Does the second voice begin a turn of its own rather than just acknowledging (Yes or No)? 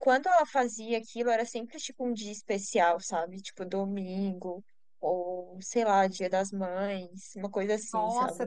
Yes